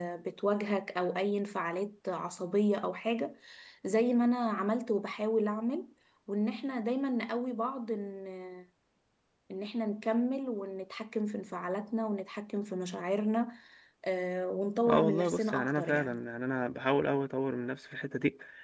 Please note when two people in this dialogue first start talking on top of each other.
14.9 s

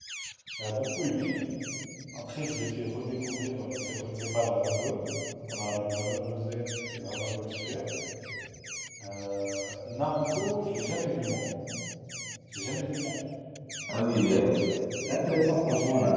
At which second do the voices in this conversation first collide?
none

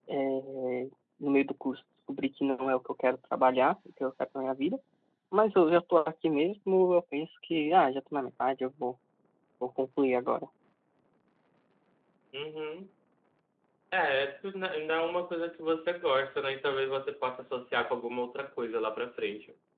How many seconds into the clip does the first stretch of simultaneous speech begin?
none

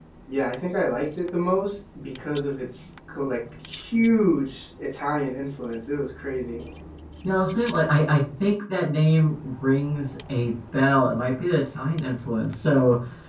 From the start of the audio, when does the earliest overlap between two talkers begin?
none

